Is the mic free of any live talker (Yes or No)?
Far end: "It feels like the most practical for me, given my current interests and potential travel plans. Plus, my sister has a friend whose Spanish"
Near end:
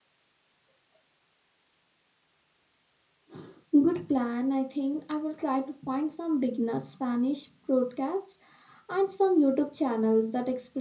No